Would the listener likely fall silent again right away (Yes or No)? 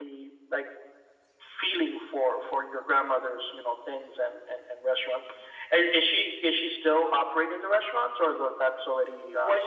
No